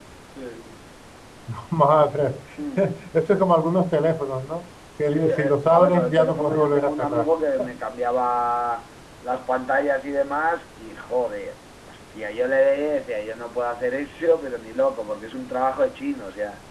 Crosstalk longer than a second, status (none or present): present